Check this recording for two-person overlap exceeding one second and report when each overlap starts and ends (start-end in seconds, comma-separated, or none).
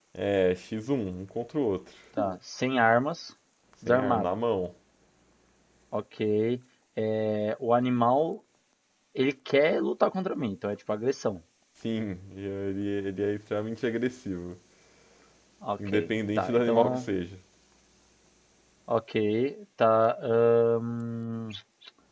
15.9-17.1